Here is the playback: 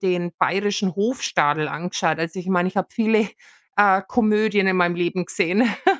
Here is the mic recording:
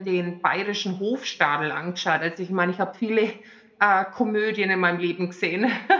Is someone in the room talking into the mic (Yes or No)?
No